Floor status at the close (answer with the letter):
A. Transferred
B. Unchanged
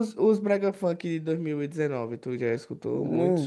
A